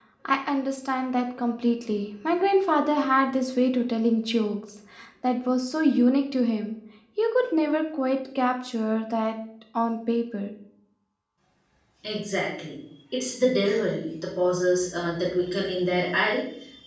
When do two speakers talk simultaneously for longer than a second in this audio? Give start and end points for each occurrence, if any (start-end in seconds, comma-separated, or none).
none